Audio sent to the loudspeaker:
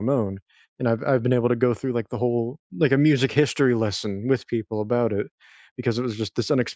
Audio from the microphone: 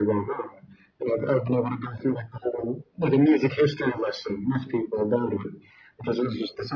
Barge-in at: none

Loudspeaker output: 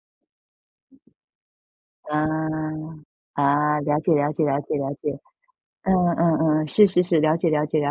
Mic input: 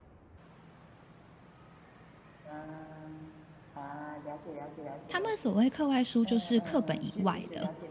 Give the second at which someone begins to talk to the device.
5.1 s

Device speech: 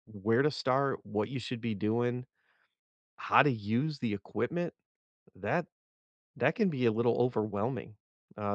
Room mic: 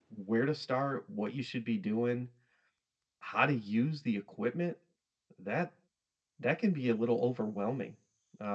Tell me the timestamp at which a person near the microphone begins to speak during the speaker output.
none

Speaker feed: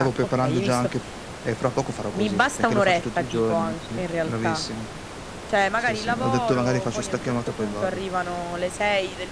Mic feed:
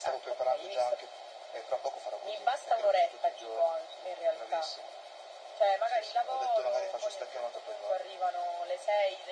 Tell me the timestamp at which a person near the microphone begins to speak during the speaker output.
none

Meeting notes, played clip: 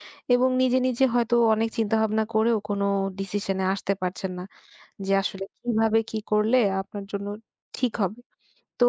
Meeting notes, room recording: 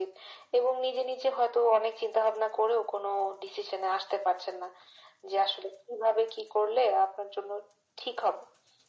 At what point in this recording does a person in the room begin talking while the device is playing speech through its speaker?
none

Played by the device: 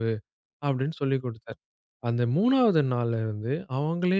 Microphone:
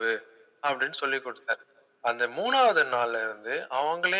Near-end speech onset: none

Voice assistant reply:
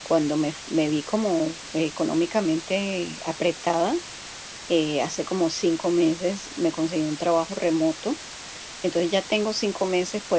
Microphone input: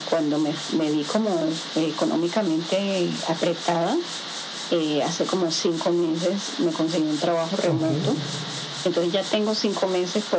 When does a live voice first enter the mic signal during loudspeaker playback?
7.6 s

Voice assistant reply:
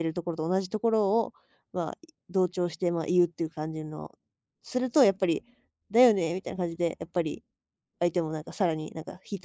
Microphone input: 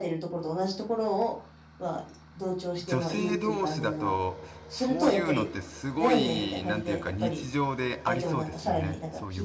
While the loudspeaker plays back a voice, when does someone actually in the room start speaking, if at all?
2.8 s

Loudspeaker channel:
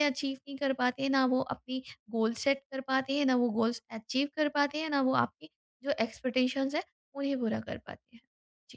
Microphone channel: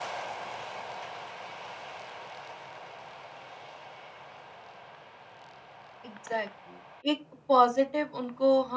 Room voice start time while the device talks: 6.0 s

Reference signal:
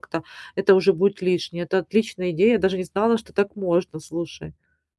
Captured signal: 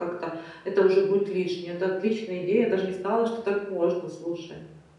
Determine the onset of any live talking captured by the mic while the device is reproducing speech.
none

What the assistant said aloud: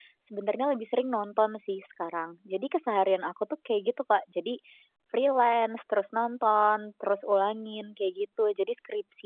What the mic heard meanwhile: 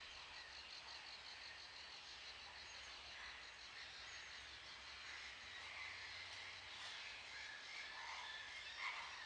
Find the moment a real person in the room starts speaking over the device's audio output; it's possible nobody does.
none

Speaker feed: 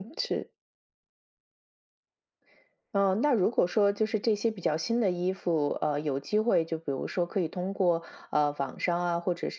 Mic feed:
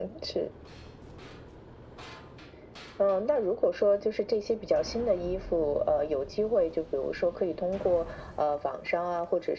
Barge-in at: none

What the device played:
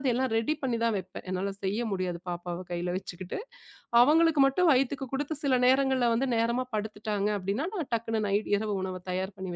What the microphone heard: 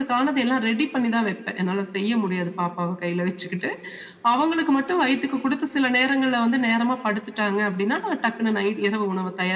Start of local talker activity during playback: none

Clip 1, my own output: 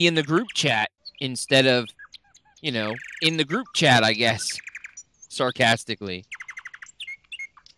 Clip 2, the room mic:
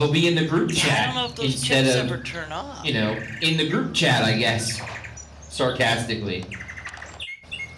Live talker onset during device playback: 0.7 s

